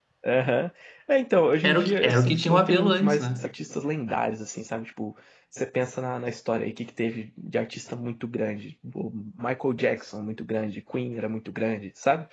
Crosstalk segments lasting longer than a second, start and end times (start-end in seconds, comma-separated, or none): 1.7-3.5